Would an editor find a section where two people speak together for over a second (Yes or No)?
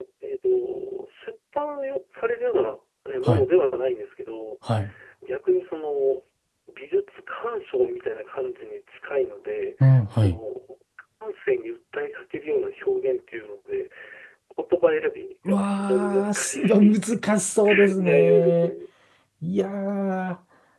Yes